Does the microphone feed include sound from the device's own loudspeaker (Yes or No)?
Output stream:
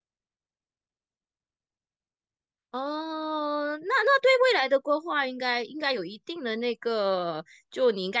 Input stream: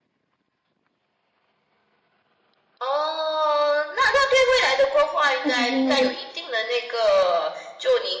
Yes